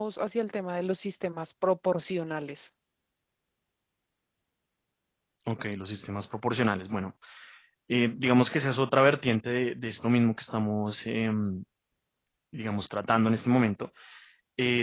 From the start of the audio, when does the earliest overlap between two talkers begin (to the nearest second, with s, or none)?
none